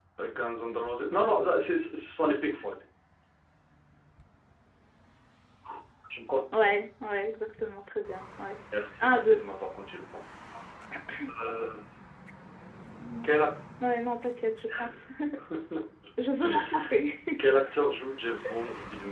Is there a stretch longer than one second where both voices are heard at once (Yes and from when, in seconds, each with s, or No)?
No